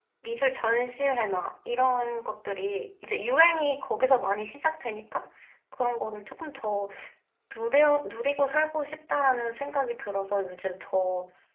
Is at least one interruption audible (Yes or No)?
No